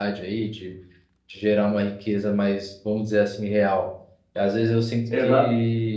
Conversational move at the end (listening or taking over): listening